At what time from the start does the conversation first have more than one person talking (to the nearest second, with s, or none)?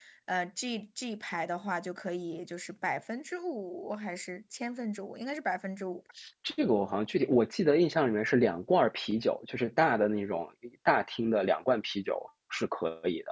none